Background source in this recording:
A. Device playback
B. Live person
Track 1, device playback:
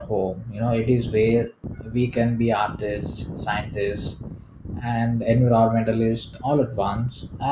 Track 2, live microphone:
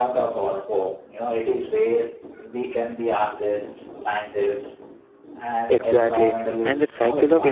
A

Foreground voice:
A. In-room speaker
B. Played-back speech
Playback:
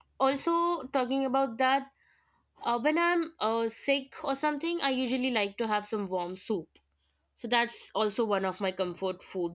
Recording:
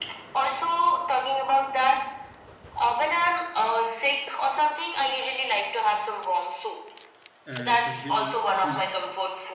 B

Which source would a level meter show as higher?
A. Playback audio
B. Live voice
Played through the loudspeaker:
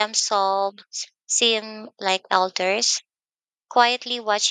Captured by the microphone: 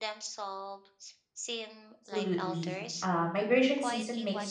B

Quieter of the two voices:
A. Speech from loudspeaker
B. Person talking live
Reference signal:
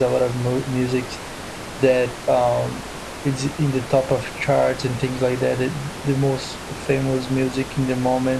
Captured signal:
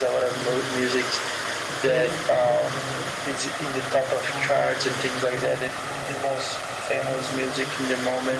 B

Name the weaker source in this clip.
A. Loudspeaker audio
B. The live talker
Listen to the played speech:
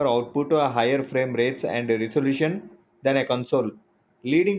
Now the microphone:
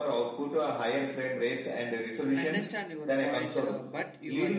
B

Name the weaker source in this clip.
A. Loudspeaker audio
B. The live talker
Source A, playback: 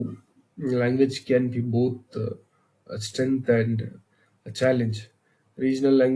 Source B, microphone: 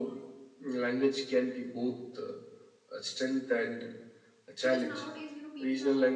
B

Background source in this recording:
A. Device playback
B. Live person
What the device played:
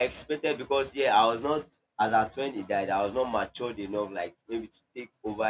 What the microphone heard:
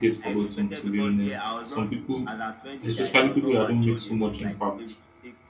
A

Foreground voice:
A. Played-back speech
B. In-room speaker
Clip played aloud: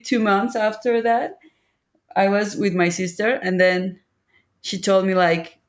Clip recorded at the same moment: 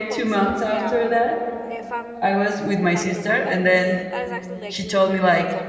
A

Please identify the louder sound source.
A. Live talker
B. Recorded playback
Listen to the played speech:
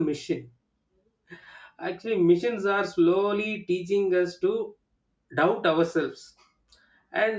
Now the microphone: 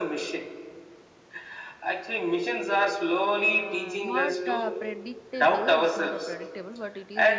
B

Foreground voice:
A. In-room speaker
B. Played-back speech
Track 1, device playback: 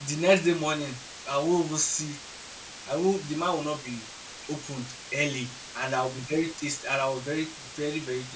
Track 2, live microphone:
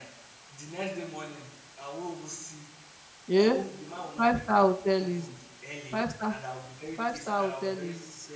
A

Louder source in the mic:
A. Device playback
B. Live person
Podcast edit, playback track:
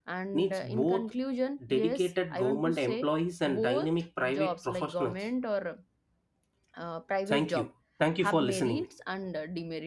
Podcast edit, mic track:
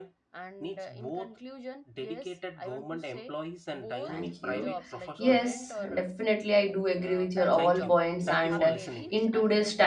B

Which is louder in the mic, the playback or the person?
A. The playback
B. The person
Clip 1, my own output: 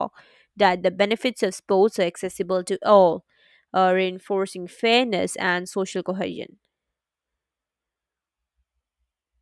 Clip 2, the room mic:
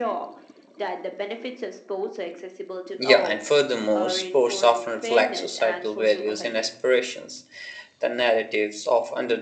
B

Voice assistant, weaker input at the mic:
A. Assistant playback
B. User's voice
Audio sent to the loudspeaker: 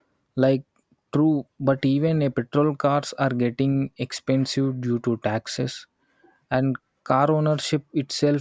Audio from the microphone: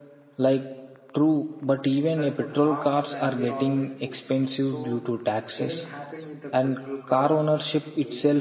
B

